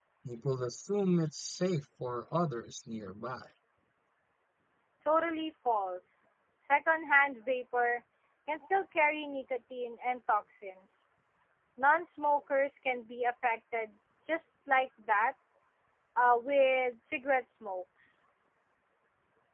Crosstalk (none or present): none